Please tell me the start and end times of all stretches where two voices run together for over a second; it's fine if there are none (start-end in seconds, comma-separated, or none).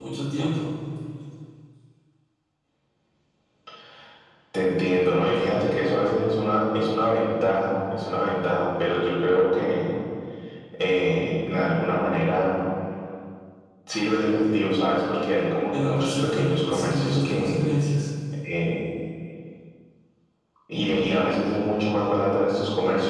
15.7-17.7